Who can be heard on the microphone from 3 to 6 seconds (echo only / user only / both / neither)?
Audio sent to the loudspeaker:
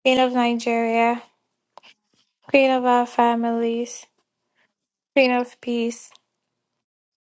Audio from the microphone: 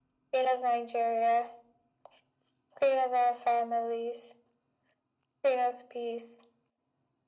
echo only